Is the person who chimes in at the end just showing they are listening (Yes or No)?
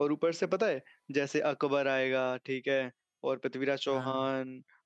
Yes